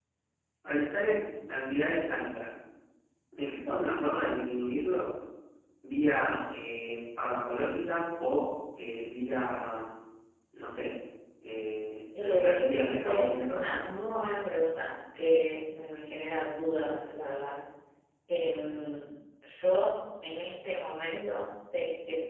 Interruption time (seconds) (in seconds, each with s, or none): 12.1 s